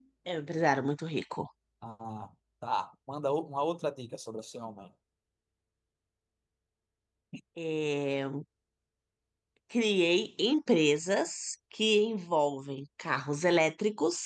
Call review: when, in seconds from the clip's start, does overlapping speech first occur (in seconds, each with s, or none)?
none